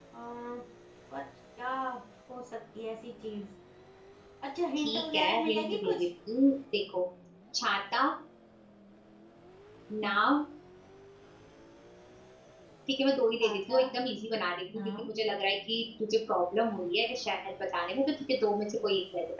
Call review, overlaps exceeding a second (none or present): present